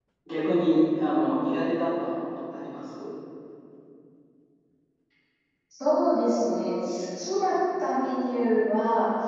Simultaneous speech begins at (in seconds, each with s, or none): none